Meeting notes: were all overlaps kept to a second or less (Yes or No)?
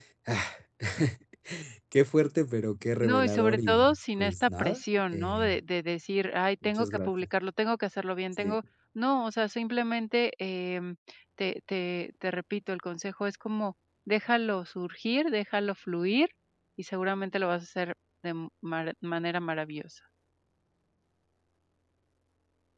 No